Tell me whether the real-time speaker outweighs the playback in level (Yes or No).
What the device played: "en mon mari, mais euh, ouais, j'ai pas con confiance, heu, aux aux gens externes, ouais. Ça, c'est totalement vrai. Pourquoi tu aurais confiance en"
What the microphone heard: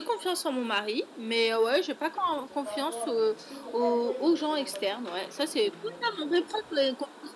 No